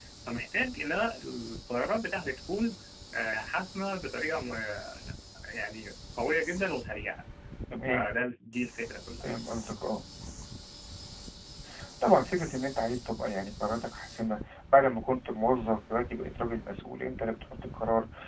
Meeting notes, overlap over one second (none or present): none